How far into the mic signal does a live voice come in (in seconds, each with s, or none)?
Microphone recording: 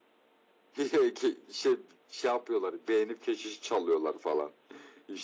none